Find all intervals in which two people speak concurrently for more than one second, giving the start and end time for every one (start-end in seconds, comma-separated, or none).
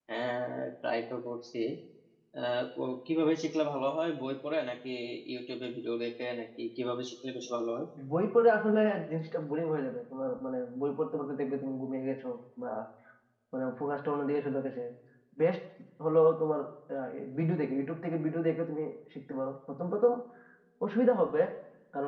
none